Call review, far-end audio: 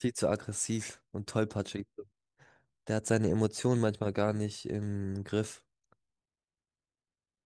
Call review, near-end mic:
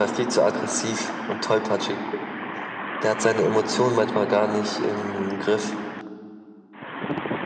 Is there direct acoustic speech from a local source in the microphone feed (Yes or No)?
No